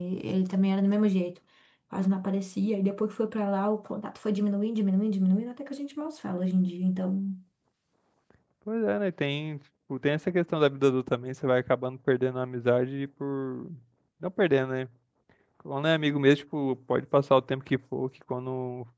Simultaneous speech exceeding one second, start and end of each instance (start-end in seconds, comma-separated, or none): none